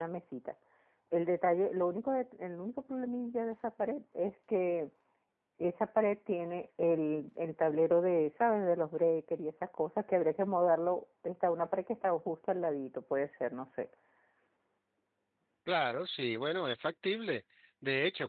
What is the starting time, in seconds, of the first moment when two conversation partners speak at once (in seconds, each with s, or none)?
none